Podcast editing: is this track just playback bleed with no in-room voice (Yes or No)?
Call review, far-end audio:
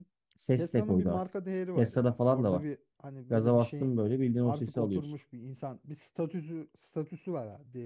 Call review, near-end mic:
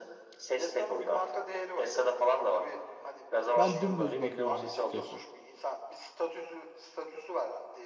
No